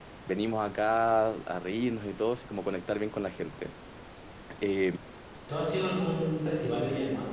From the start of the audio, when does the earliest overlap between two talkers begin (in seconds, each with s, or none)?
none